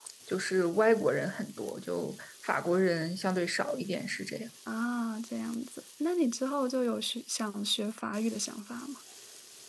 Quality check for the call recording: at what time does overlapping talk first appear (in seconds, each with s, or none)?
none